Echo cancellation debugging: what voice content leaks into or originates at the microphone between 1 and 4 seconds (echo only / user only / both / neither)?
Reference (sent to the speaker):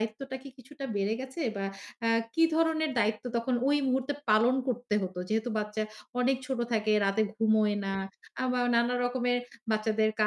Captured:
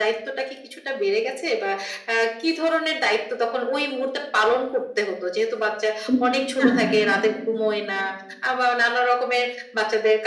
echo only